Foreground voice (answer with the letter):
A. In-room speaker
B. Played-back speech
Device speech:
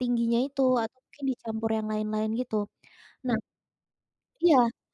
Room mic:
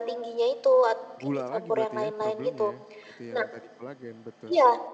B